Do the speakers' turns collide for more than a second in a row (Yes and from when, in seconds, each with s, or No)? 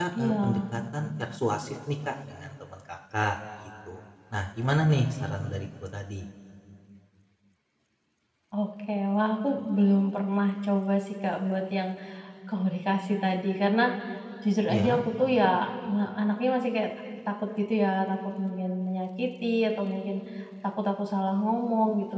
No